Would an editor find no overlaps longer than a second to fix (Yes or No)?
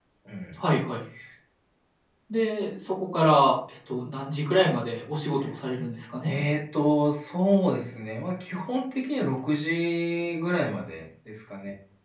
Yes